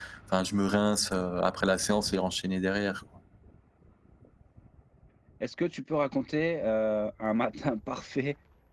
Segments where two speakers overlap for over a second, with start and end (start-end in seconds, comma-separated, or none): none